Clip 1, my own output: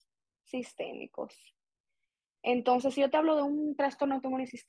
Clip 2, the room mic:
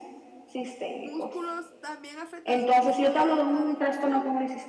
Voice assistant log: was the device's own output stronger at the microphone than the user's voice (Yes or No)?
Yes